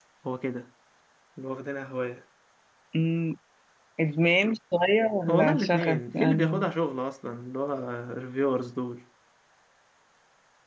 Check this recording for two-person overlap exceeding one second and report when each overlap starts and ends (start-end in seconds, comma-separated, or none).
5.3-6.8